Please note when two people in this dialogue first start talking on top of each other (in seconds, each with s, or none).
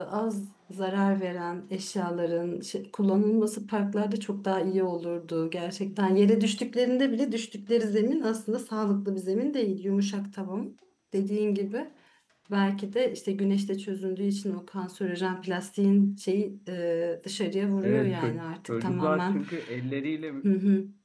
17.8 s